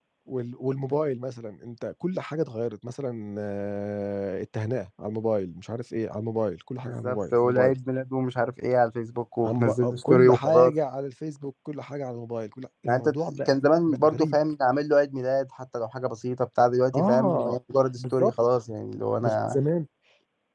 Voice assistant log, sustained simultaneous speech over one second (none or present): present